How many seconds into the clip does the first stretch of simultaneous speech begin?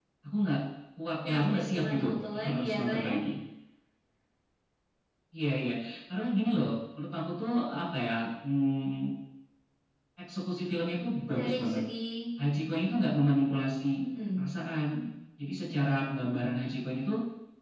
1 s

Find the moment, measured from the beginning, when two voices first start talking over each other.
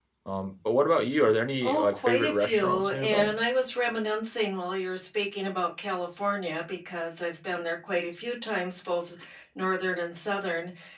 2 s

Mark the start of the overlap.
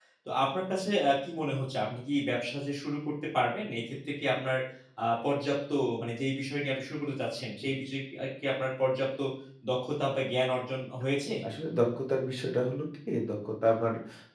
none

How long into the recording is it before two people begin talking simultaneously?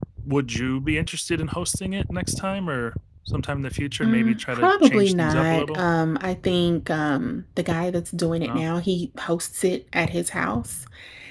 4 s

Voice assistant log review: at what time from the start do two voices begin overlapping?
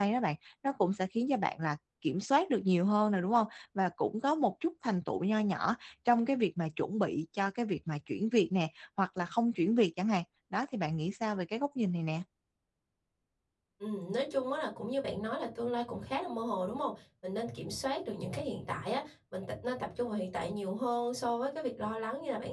none

